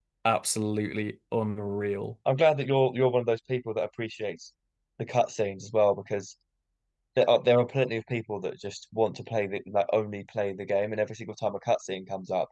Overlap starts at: none

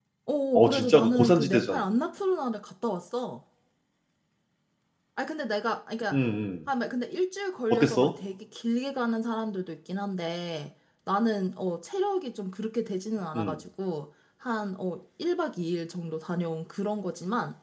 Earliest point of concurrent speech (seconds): 0.6 s

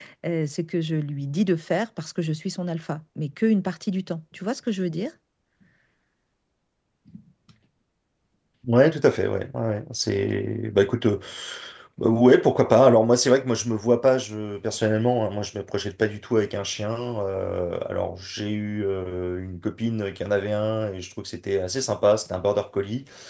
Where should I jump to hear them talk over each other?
none

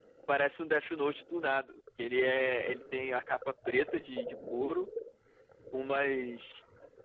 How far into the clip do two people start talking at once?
none

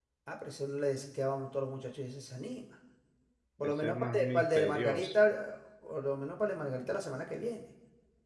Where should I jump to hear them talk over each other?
3.6 s

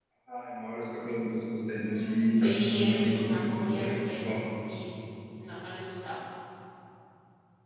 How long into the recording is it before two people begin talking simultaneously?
1.9 s

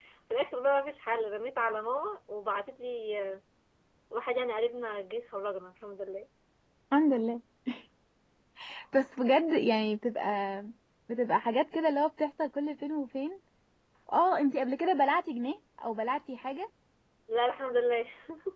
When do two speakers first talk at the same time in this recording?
none

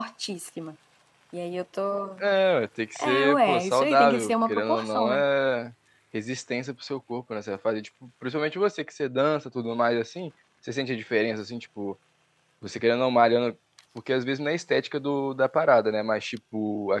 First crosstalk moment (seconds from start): 3.0 s

